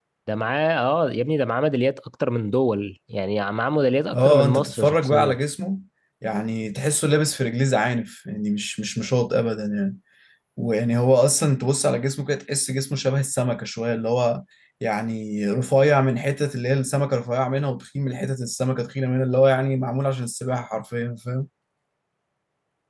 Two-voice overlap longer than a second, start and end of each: 4.1-5.4

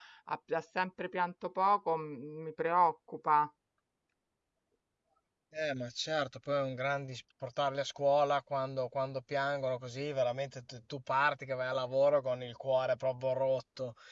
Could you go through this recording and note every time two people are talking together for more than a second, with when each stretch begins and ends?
none

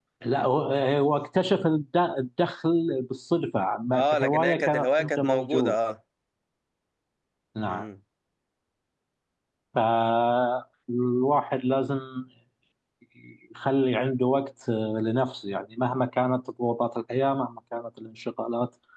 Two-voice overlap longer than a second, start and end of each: 3.9-5.8

